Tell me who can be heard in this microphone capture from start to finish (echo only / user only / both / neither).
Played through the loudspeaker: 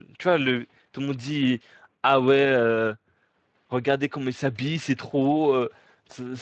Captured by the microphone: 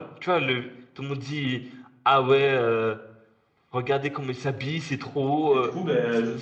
both